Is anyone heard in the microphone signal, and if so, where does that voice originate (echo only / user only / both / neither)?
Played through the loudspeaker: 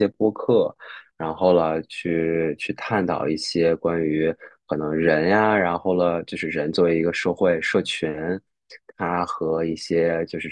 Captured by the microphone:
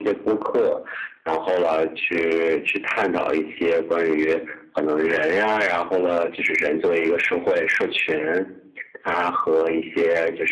echo only